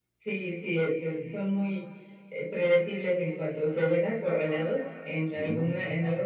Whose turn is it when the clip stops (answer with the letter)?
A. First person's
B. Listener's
A